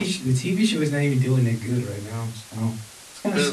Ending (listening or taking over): taking over